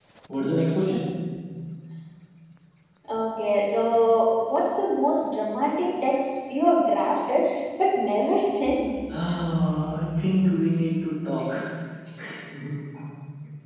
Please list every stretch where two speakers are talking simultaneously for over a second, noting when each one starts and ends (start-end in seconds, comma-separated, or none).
none